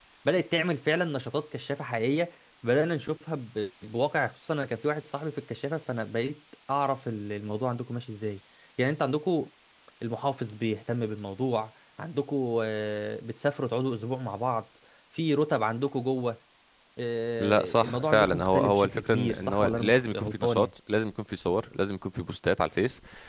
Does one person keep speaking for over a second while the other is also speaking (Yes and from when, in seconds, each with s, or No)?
Yes, from 17.4 s